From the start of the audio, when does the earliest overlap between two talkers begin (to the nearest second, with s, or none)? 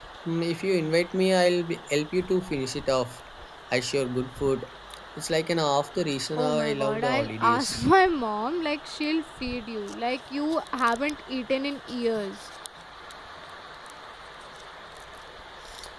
6 s